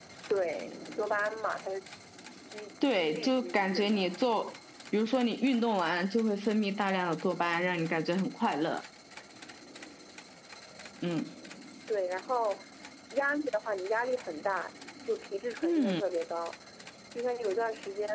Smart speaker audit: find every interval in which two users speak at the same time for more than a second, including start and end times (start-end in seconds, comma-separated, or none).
2.8-4.0